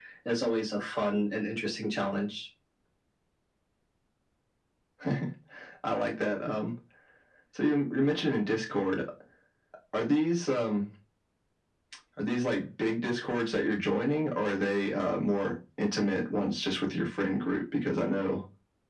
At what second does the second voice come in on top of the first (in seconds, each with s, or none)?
none